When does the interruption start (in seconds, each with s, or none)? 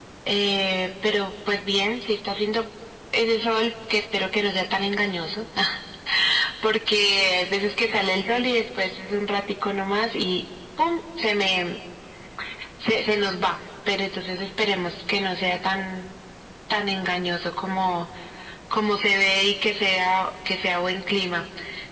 none